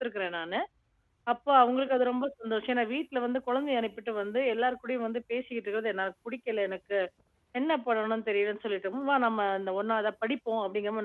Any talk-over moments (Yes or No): No